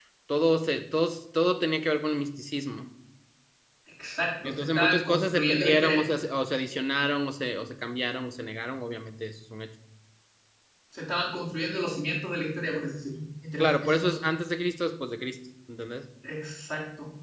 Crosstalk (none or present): present